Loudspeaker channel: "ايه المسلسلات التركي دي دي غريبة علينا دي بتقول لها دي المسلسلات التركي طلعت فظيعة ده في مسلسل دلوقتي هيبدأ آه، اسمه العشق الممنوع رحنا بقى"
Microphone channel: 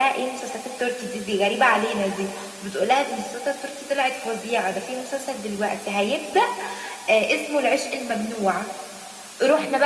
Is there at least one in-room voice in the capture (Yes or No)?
No